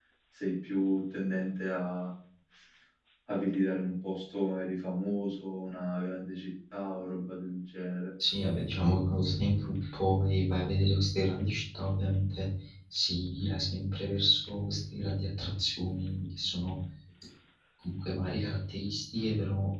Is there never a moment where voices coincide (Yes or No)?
Yes